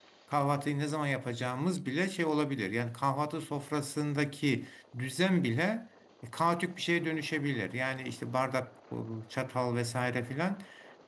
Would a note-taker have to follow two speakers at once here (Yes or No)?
No